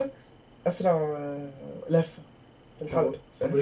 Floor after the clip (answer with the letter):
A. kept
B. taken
B